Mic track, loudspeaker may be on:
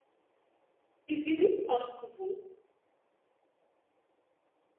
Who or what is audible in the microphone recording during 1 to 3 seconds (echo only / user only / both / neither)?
user only